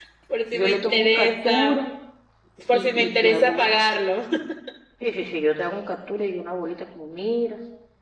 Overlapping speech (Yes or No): Yes